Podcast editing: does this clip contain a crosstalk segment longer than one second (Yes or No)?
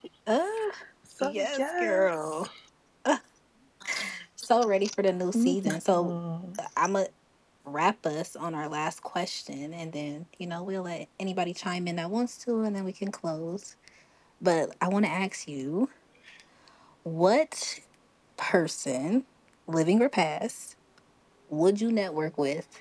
Yes